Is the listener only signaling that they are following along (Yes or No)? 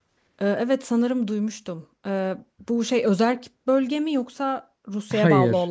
No